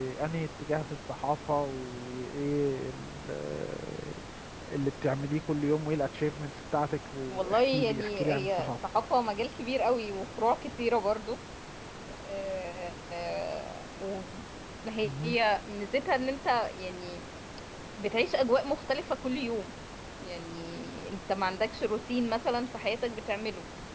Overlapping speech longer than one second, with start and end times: 7.3-8.7

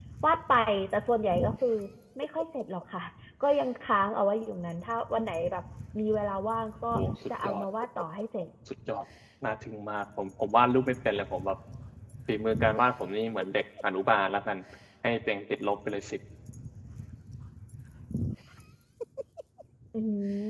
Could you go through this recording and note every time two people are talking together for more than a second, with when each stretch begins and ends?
none

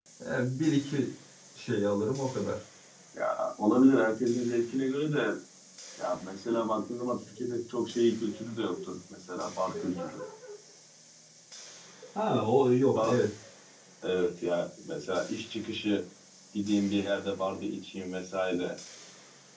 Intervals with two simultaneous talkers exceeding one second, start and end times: none

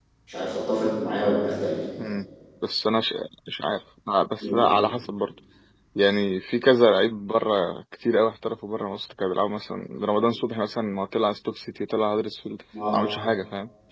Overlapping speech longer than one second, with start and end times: none

